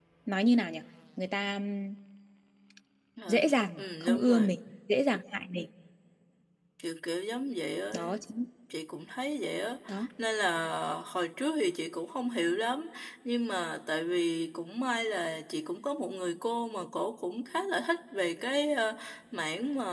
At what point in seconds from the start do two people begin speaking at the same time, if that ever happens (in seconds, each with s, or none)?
3.3 s